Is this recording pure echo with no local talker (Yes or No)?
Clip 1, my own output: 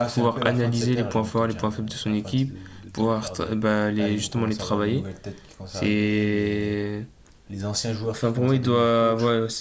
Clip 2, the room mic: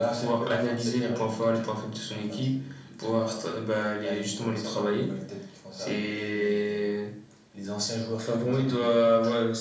Yes